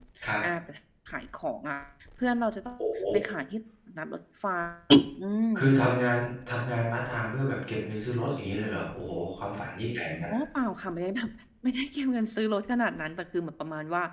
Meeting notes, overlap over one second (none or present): none